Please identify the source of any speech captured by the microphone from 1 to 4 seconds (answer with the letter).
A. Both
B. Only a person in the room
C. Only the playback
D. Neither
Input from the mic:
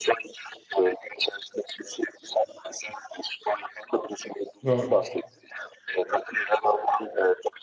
C